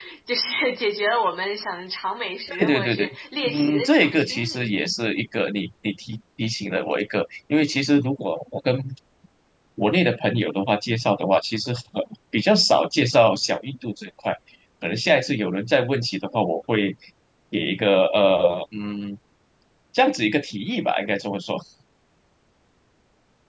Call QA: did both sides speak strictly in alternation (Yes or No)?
No